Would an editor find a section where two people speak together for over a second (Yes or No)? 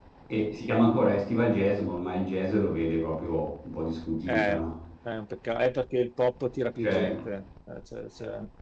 No